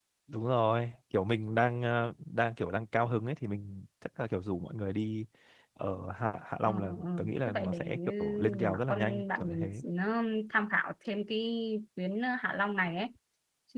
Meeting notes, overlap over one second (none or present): present